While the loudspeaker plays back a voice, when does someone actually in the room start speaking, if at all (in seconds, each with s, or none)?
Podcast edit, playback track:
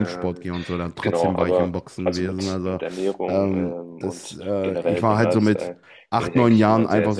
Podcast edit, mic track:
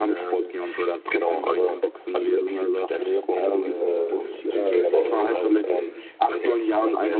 3.8 s